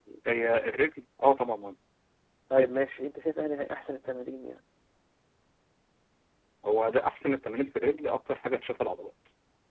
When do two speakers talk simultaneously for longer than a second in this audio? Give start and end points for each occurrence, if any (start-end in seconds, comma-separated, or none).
none